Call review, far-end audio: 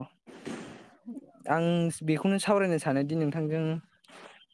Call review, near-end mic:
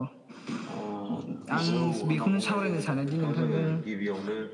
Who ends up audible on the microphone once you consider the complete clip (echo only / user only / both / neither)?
both